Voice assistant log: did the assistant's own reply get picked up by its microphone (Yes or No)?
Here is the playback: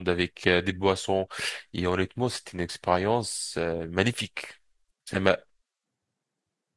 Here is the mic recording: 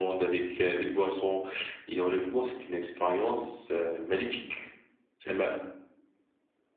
Yes